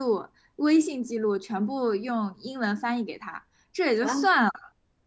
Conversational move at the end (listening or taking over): listening